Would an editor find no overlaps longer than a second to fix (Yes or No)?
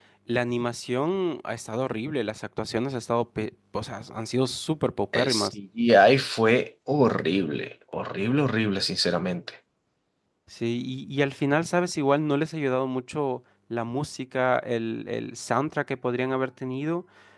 Yes